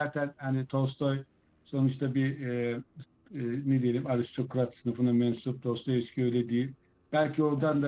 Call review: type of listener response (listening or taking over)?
listening